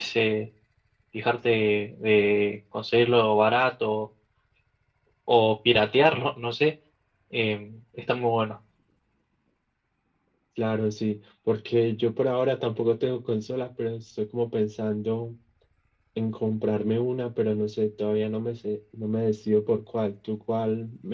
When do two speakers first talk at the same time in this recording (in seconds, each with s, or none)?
none